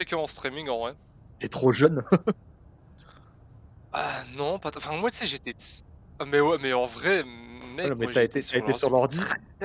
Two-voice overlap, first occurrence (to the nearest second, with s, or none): 8 s